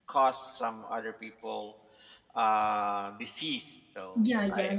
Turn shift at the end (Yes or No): Yes